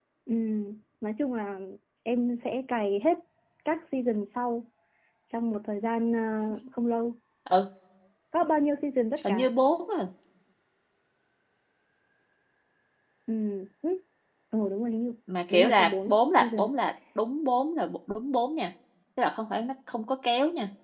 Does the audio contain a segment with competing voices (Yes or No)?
Yes